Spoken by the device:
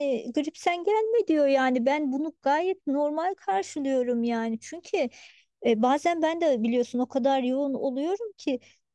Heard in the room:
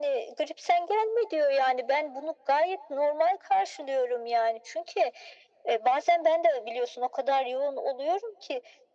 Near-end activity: none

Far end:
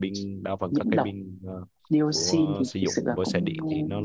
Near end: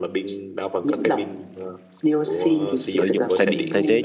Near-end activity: present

